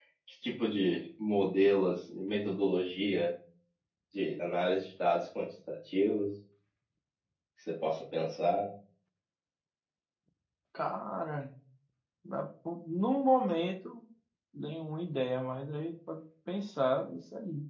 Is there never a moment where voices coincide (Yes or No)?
Yes